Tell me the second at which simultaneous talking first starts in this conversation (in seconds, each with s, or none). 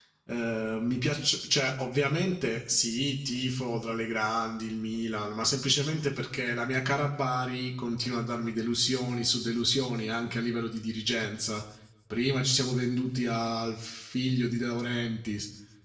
none